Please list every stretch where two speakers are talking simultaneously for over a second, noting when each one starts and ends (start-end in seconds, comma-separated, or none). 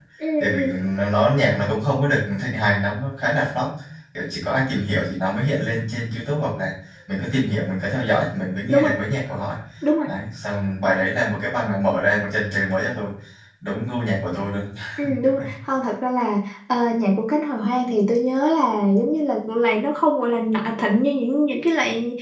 none